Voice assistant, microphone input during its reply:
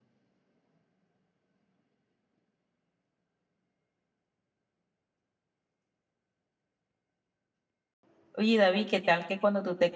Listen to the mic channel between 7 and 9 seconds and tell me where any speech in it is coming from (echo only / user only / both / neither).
user only